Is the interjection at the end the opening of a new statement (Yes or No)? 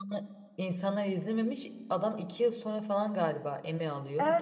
Yes